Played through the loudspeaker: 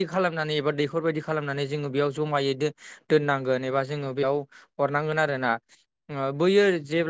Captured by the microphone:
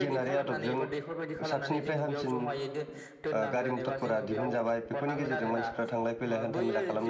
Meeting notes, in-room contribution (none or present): present